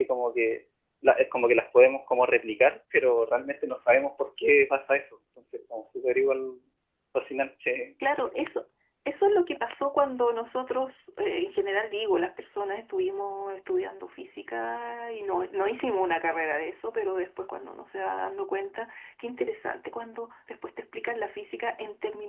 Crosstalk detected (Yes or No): No